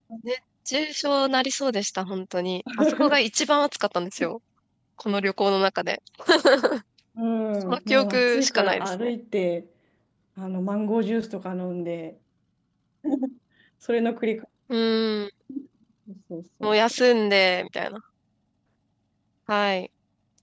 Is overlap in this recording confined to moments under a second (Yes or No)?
No